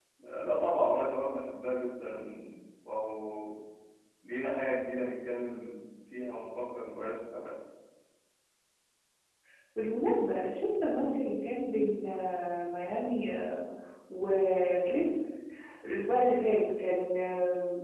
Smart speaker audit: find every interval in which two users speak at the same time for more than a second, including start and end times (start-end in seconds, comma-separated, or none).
none